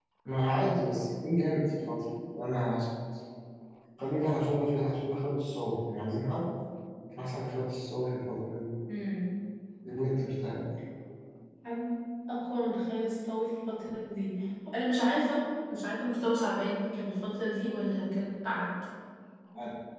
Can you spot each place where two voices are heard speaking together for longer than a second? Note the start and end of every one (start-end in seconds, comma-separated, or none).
none